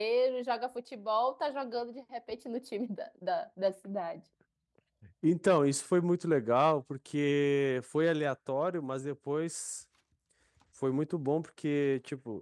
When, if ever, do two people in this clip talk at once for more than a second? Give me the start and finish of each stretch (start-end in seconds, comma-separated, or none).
none